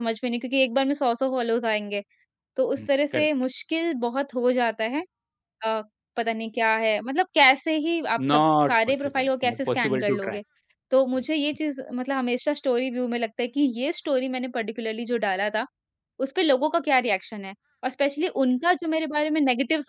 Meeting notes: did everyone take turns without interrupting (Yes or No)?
No